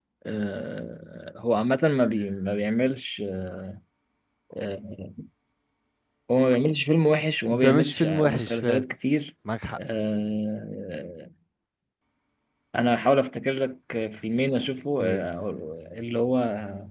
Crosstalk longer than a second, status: present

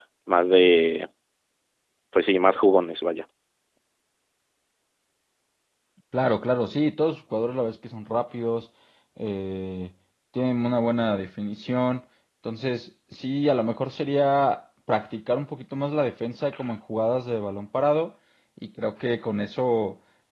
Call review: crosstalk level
none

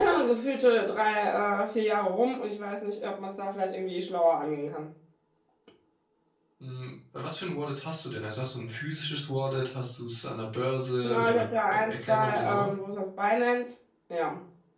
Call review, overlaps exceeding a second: present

